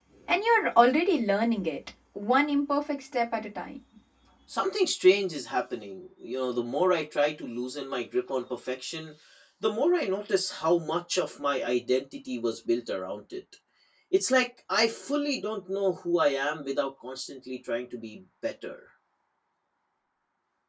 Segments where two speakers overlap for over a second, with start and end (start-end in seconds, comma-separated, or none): none